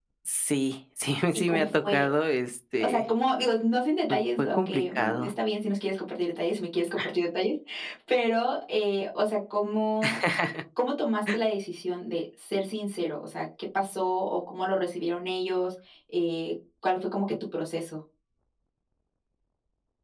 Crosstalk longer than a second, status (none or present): present